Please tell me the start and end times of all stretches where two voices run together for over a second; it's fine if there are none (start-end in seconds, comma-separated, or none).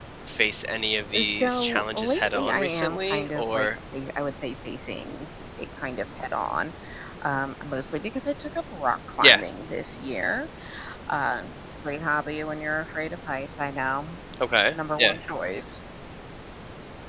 1.2-3.7